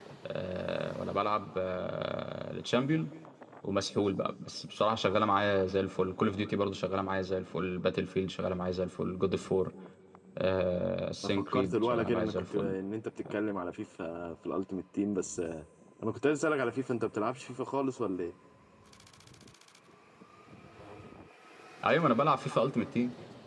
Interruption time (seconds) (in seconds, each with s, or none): 11.5 s